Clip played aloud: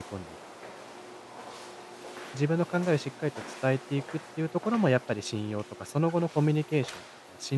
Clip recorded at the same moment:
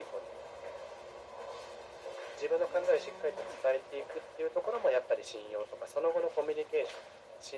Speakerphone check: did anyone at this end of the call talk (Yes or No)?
No